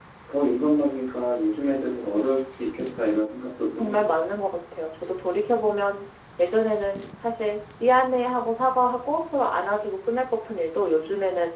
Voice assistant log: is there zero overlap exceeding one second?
Yes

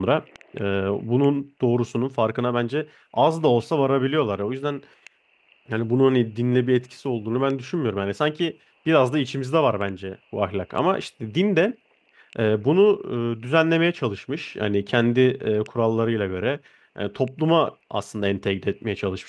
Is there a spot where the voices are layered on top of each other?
No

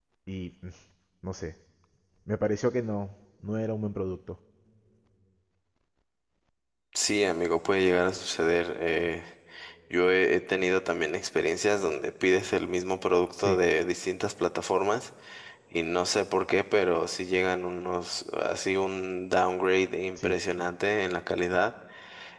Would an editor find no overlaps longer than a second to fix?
Yes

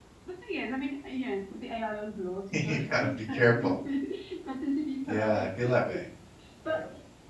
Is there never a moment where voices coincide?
No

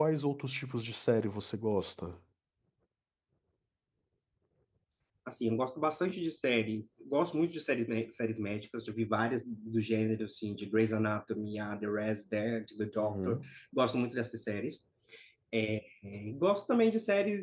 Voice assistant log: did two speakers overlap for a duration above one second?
No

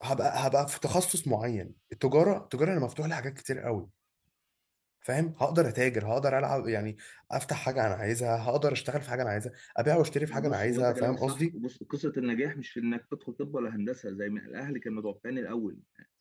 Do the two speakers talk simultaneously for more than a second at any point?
Yes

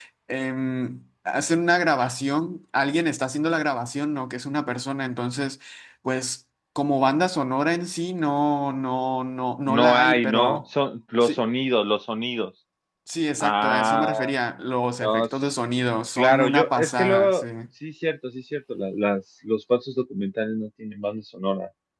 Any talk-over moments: Yes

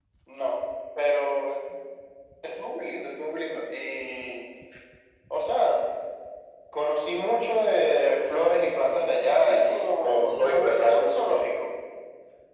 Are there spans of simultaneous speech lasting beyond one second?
Yes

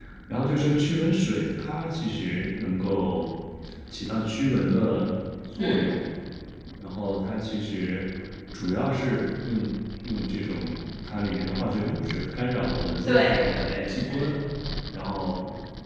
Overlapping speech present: Yes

